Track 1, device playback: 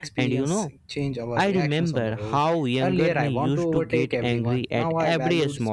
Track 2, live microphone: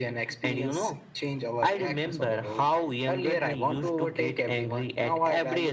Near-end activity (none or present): none